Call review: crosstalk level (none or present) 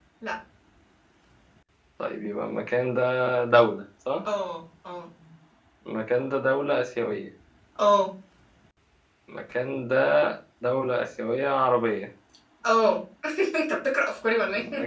none